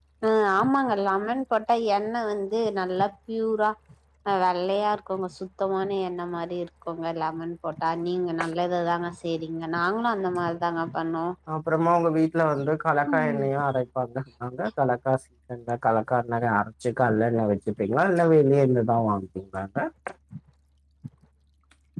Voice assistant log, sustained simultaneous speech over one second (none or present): none